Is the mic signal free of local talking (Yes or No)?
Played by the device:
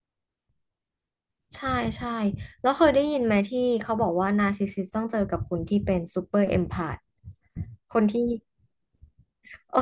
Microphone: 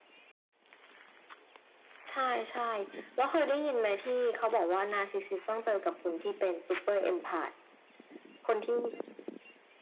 Yes